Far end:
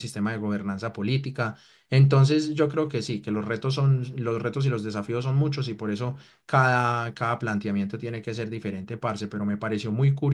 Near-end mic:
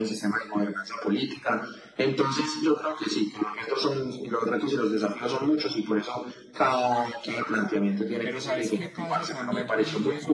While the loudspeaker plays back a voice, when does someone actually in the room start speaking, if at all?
8.2 s

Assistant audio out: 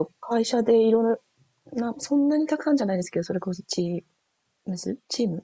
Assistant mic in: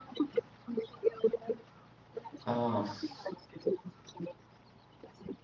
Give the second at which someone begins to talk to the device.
2.4 s

